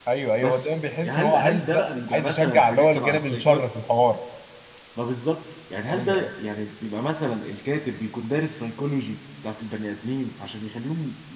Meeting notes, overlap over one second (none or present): present